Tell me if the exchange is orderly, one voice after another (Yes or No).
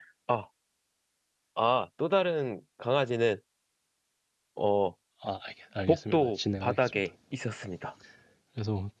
No